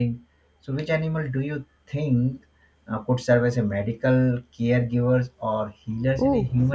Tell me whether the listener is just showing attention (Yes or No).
No